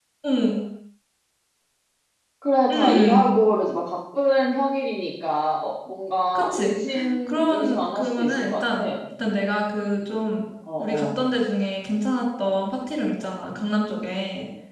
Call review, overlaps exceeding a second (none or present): present